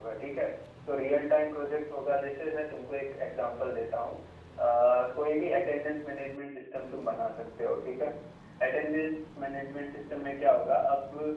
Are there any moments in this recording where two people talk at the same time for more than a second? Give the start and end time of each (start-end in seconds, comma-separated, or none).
none